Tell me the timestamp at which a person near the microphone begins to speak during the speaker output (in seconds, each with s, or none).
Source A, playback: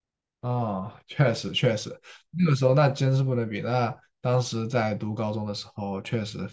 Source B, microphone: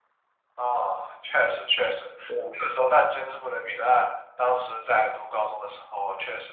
2.3 s